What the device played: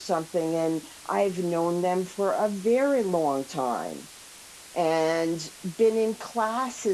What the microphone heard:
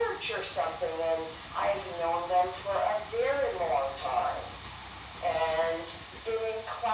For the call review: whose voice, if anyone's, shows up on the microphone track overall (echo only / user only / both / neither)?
echo only